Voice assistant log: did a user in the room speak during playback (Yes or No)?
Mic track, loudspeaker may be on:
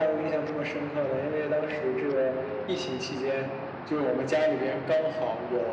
No